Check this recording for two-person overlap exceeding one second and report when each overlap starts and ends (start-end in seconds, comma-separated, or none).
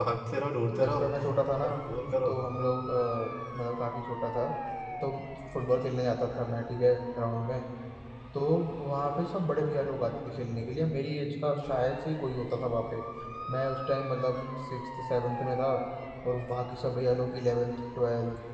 none